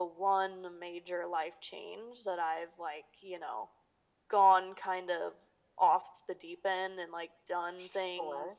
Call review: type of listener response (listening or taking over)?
listening